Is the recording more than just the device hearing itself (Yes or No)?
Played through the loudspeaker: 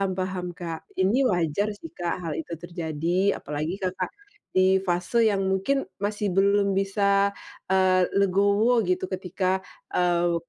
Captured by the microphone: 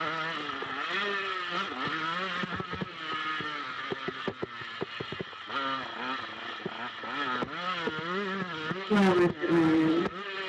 Yes